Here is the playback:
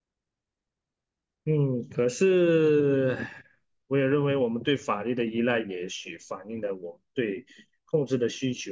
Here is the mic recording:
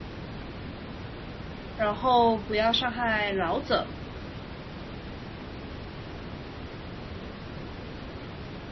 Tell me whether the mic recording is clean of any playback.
Yes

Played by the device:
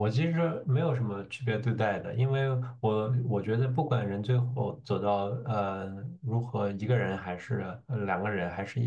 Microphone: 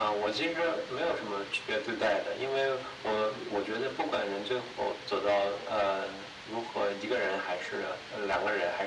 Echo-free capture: No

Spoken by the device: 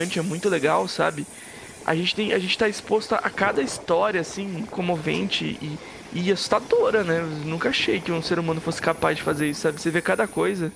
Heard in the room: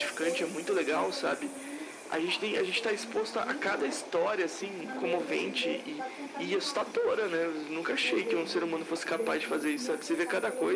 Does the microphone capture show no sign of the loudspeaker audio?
No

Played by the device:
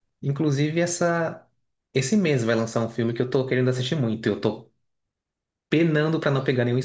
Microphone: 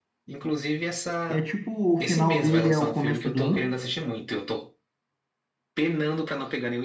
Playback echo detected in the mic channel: Yes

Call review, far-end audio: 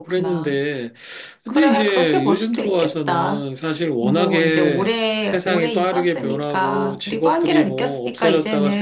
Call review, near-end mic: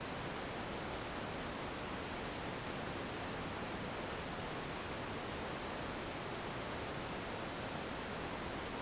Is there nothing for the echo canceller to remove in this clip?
Yes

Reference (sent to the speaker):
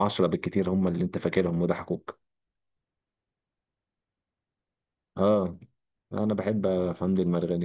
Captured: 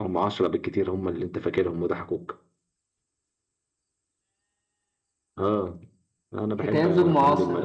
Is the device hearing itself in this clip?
Yes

